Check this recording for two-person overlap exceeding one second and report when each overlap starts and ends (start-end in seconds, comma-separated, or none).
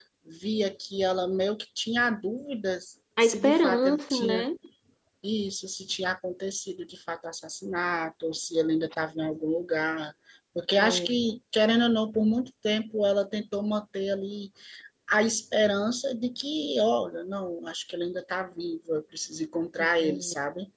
3.2-4.4